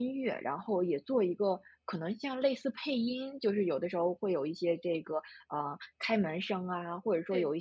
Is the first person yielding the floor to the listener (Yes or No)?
No